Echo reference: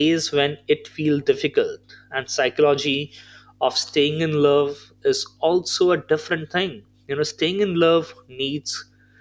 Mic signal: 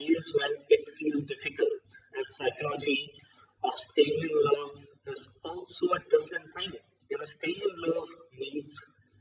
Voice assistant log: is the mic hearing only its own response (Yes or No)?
Yes